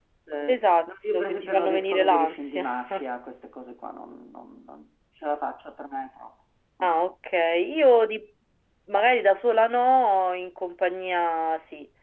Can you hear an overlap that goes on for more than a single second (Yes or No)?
Yes